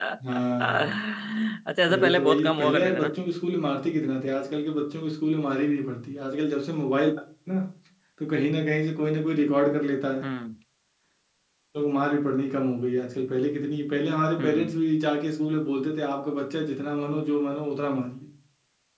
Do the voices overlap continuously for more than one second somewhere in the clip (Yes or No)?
Yes